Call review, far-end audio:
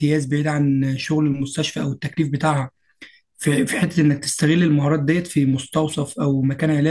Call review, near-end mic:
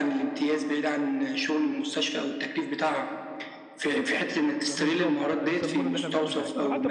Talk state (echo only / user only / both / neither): both